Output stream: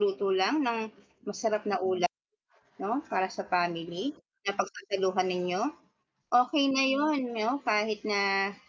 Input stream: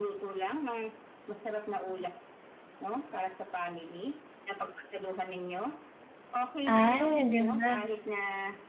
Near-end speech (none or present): present